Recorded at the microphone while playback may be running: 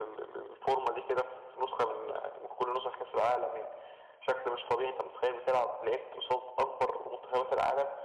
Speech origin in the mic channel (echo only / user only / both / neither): echo only